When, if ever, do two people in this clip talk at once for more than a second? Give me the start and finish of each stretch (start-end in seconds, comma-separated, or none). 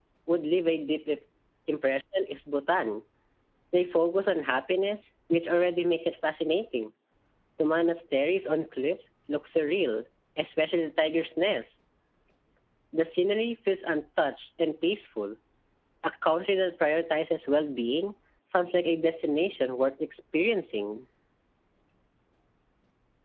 none